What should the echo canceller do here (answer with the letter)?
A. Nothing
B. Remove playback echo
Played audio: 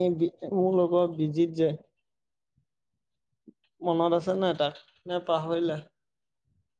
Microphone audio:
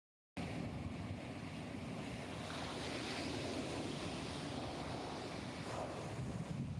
A